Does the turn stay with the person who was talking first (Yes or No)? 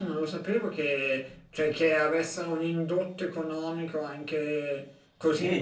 No